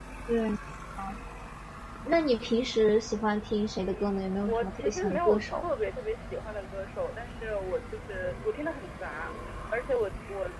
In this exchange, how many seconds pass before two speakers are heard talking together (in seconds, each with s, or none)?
3.8 s